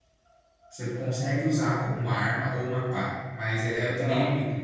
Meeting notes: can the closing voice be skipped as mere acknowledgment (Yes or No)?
Yes